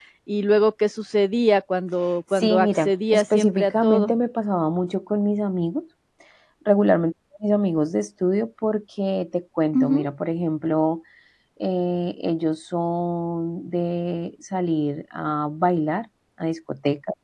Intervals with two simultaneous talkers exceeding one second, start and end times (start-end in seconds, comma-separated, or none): 2.3-4.1